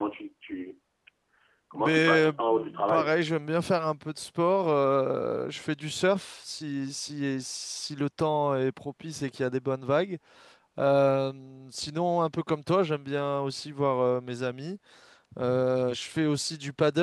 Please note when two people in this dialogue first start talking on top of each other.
2 s

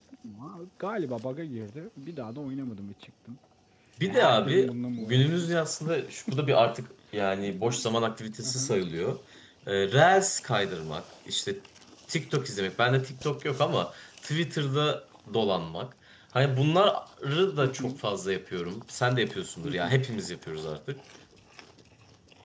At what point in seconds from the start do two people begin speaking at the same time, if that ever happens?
4 s

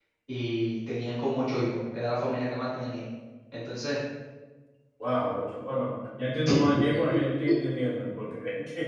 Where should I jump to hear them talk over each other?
none

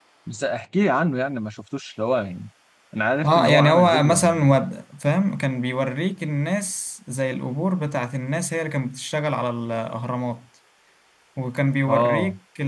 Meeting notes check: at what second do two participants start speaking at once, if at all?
3 s

